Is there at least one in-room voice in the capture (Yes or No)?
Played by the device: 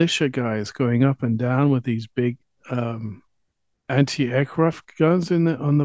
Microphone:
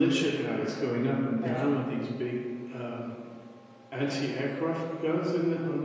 Yes